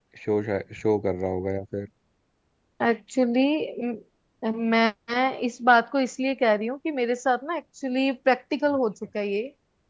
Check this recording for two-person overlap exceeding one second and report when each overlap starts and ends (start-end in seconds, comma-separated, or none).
none